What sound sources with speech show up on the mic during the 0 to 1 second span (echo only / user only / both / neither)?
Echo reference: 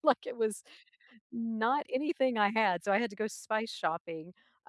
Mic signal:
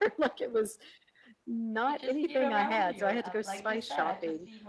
echo only